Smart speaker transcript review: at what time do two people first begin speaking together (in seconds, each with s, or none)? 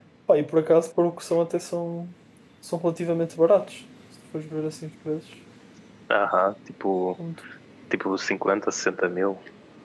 none